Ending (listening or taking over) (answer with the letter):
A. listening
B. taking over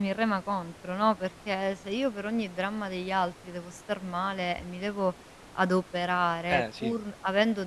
A